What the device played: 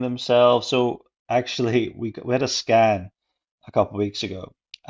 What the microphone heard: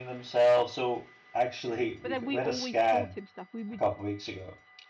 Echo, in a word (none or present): present